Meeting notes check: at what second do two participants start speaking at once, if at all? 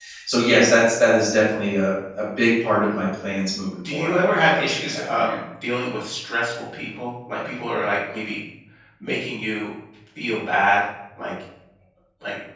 3.8 s

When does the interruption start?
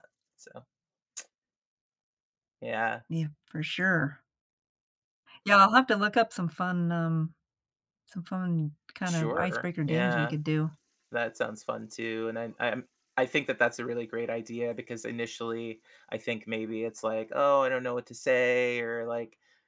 9.1 s

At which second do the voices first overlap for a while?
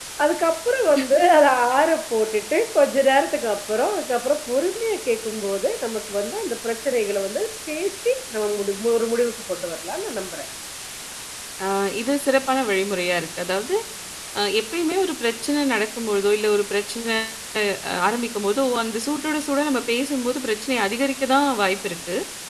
none

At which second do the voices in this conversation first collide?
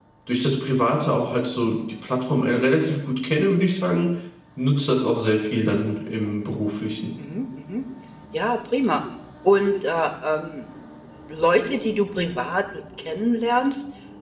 none

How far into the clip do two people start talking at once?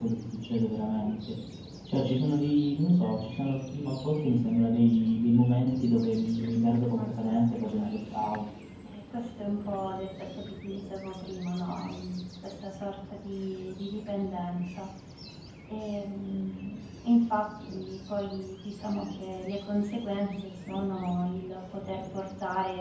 6.9 s

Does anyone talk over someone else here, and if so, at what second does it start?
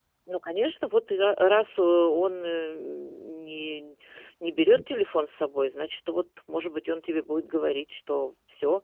none

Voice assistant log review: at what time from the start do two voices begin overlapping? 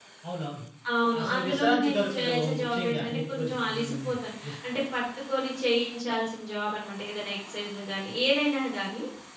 1.2 s

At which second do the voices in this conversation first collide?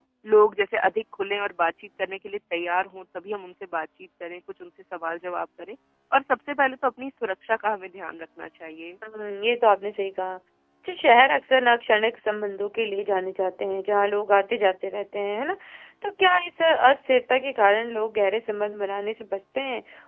none

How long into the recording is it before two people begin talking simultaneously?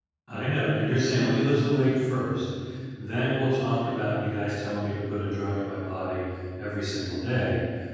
none

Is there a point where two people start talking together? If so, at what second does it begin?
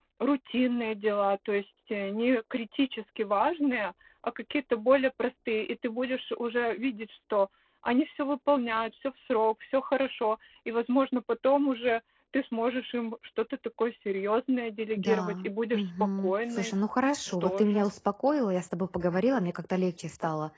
15.0 s

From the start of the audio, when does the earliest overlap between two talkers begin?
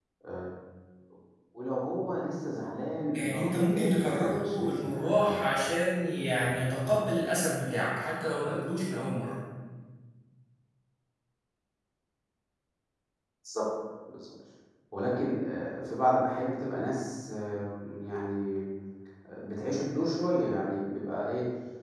3.2 s

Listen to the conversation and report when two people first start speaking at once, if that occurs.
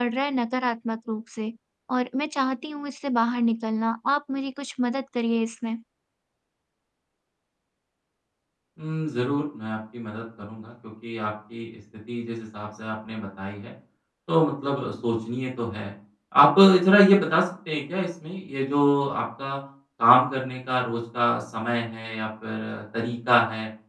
none

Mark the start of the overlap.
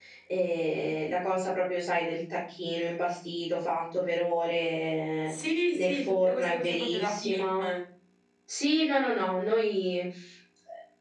5.7 s

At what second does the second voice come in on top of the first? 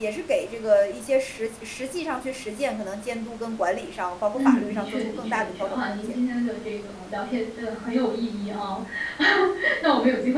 4.3 s

